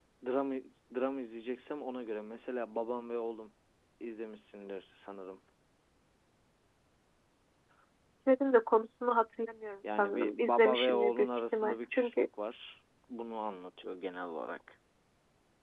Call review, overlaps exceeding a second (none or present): present